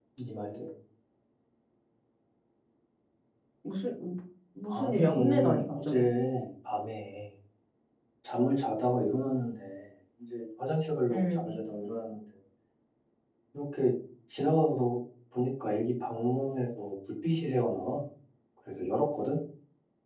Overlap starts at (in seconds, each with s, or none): 4.8 s